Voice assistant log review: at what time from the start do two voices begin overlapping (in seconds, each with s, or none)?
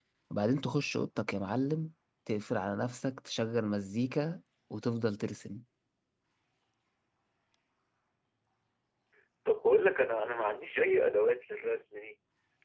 none